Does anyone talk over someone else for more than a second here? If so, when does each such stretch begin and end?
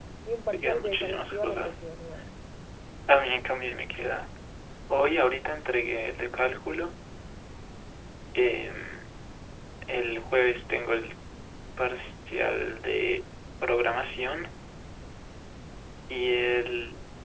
0.5-1.8

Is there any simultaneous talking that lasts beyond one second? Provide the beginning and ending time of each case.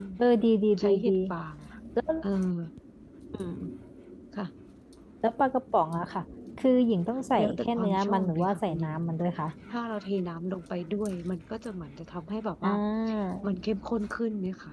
7.4-9.0

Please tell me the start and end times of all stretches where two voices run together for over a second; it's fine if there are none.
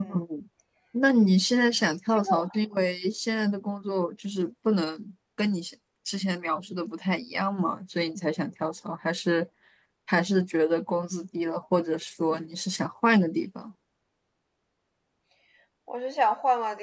none

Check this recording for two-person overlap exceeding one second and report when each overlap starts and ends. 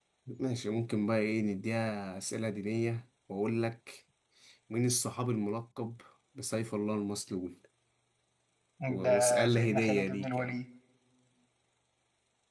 9.0-10.6

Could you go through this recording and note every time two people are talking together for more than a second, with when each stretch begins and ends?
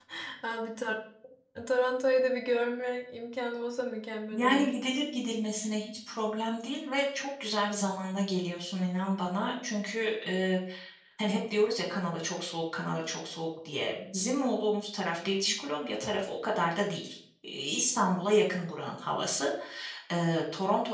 none

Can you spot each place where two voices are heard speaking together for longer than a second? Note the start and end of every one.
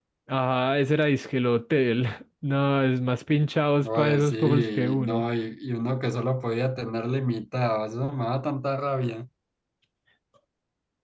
3.8-5.2

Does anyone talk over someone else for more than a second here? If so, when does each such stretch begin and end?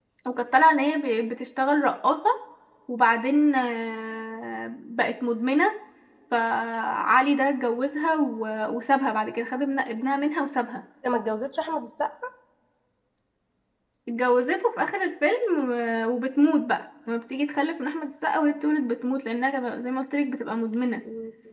none

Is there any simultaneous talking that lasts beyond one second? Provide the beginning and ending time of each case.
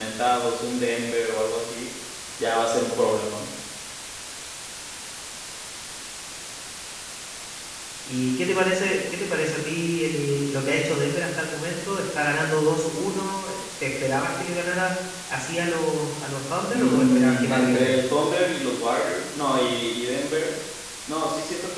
16.7-18.0

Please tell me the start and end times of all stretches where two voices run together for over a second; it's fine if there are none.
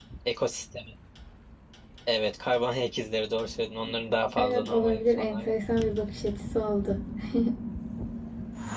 4.4-5.6

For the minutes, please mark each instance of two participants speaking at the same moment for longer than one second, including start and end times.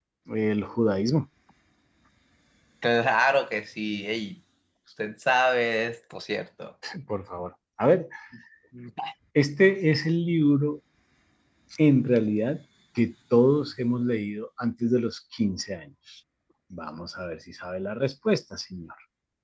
none

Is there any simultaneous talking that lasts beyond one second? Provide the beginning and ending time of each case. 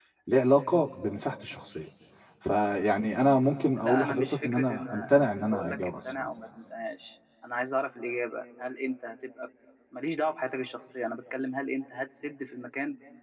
3.8-6.3

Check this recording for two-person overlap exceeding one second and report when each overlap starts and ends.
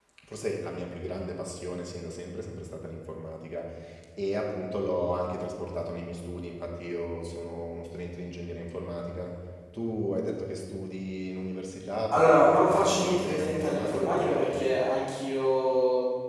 12.1-14.7

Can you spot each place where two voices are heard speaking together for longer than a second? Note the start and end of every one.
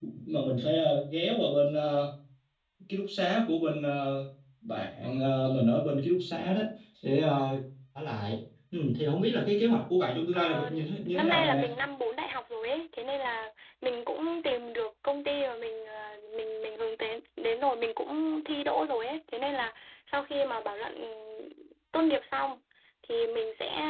10.3-11.7

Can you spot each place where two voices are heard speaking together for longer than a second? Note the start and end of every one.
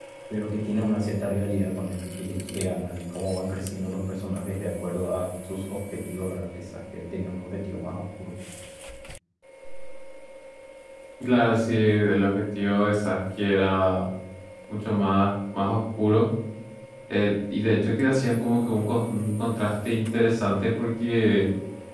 none

